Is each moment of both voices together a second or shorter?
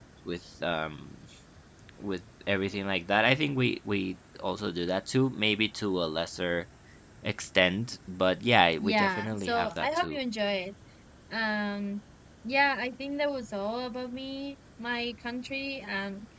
No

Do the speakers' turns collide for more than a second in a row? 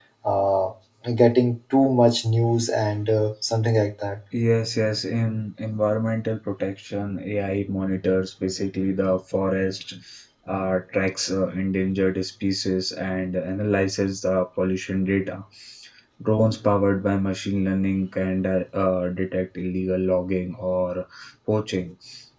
No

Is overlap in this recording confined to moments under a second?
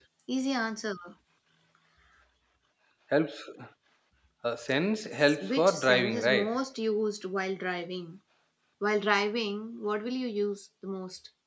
No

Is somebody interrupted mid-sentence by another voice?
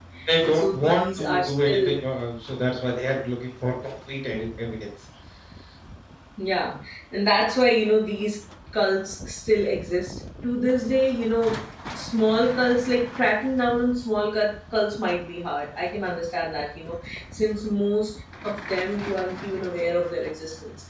Yes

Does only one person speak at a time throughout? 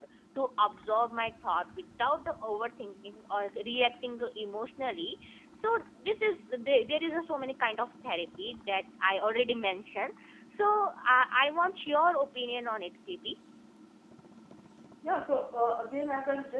Yes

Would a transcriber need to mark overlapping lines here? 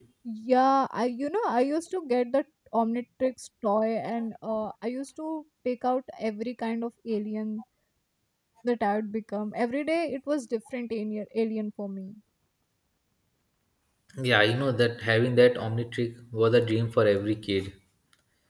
No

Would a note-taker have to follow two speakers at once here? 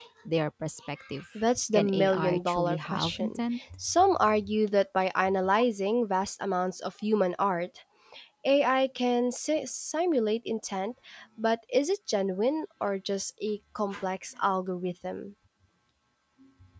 Yes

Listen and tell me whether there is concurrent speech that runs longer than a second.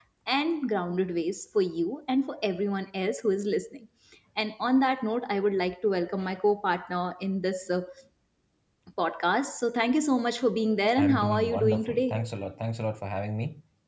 Yes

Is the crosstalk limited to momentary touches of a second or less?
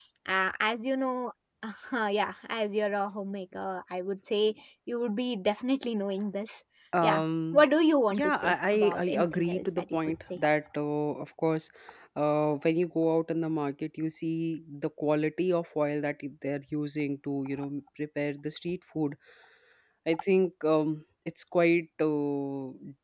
No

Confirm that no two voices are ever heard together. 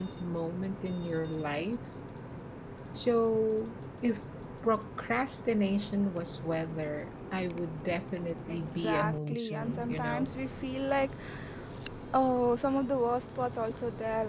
No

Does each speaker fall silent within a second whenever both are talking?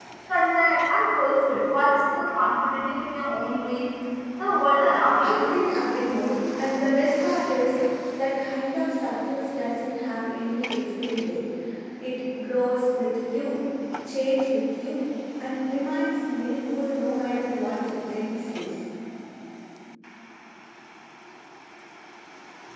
Yes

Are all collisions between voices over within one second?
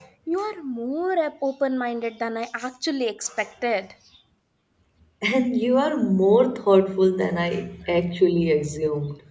Yes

